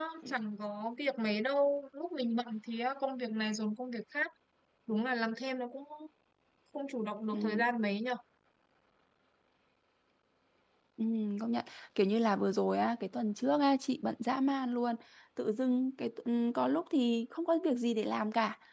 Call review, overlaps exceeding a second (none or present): none